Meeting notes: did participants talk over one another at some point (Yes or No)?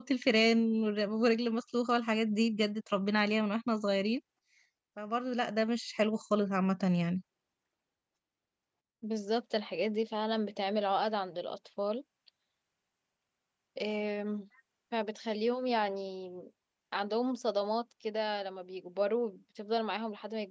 No